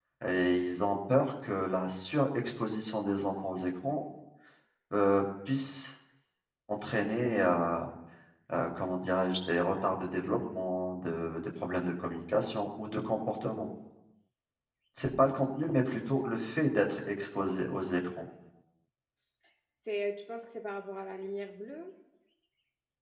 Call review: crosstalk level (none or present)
none